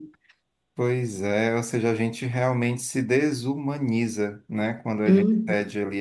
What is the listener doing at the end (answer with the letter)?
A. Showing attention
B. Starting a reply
A